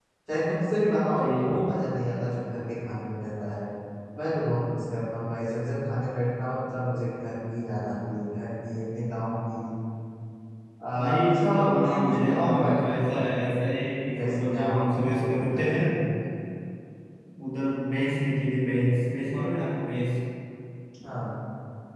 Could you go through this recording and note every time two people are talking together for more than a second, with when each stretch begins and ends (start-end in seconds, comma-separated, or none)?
11.0-13.3, 14.2-15.8